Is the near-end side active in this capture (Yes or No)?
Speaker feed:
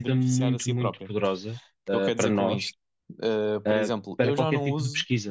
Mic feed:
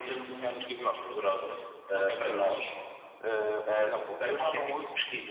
No